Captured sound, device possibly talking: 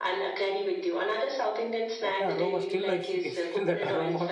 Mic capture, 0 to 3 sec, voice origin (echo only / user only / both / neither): both